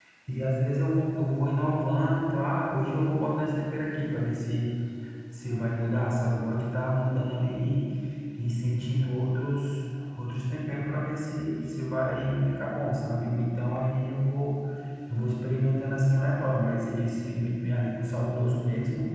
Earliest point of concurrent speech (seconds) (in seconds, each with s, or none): none